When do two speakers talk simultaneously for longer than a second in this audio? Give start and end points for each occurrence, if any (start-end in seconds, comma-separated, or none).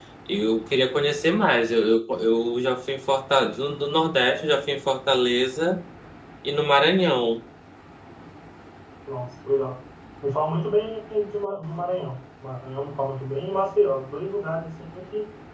none